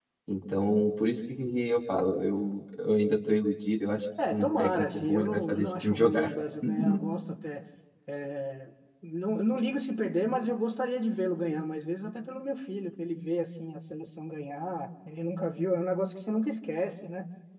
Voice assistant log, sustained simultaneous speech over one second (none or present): present